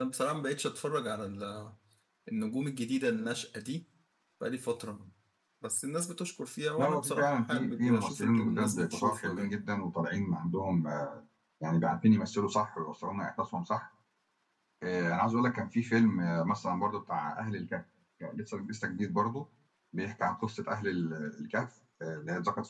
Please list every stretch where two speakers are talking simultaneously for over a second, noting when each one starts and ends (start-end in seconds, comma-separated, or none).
6.8-9.6